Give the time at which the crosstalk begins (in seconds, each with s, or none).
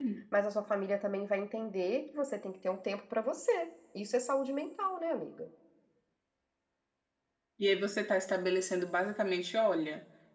none